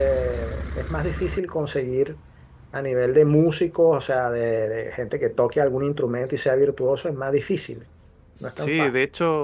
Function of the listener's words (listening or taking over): taking over